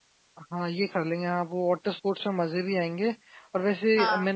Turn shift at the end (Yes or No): No